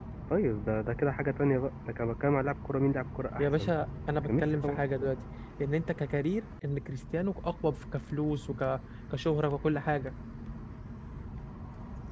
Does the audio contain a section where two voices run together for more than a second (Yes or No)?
No